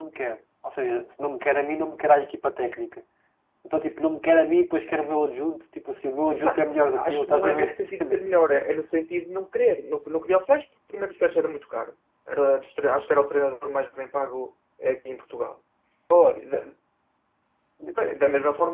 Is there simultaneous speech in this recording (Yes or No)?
Yes